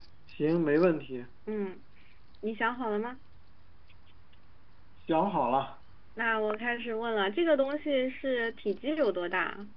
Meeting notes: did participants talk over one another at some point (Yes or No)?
No